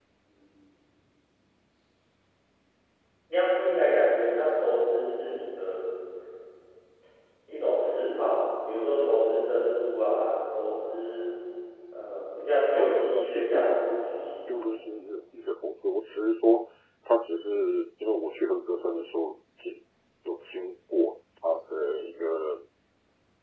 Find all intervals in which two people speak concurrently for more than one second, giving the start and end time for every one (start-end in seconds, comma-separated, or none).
12.8-14.1